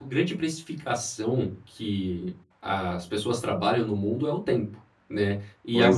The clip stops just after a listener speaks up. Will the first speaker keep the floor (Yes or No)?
Yes